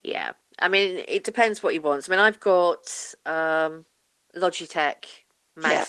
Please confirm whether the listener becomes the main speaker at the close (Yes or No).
No